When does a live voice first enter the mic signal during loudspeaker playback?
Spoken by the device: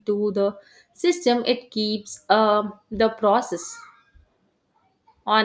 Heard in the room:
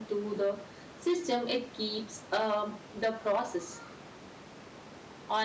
none

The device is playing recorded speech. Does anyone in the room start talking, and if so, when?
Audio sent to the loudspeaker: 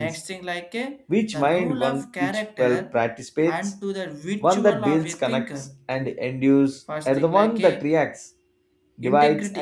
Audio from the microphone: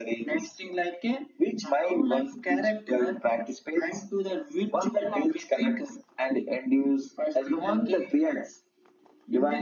none

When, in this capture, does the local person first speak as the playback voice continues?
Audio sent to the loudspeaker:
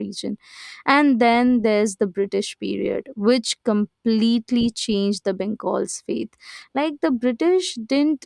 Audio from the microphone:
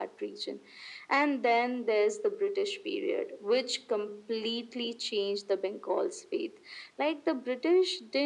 none

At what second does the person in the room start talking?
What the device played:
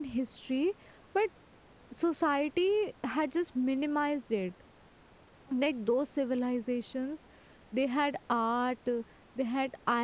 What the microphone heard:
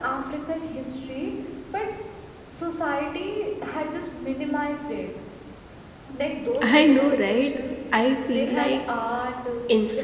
6.6 s

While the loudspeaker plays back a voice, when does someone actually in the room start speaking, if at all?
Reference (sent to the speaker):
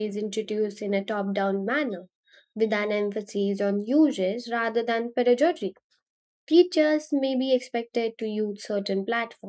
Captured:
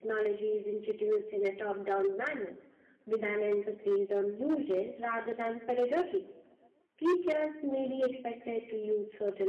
none

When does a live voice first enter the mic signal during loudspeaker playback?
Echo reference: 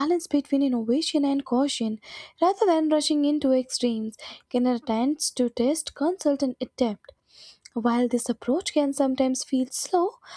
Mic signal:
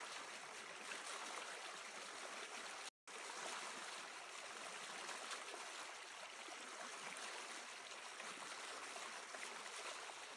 none

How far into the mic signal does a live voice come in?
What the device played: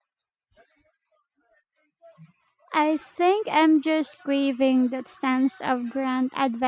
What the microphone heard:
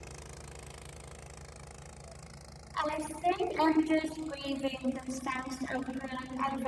none

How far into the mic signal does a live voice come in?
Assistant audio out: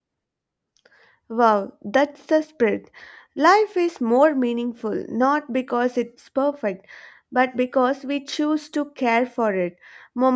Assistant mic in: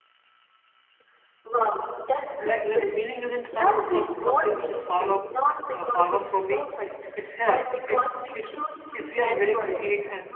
2.4 s

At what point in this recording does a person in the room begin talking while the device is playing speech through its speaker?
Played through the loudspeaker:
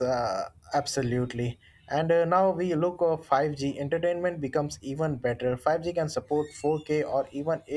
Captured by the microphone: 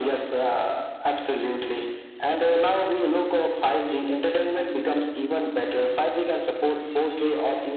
none

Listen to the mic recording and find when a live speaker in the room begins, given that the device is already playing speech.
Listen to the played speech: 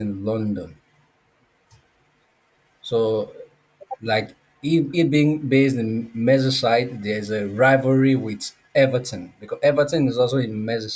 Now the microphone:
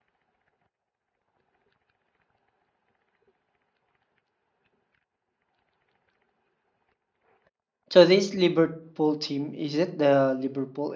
7.9 s

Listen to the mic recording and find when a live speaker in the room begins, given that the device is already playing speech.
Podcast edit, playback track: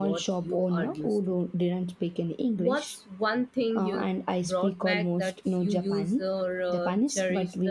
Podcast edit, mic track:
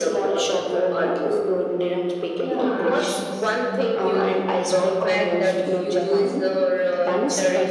2.4 s

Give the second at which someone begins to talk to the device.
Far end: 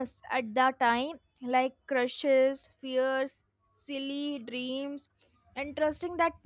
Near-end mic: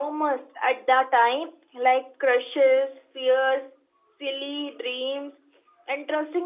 none

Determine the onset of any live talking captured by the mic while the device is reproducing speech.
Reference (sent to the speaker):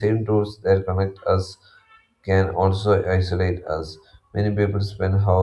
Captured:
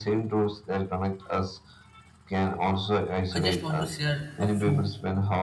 3.3 s

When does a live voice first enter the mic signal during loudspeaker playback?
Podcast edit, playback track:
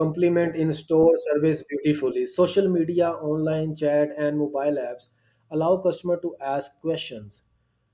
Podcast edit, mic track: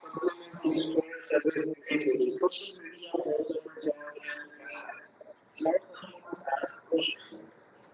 none

